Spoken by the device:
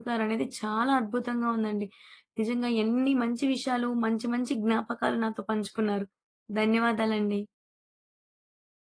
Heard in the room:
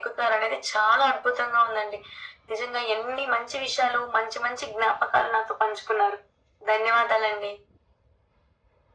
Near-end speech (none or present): none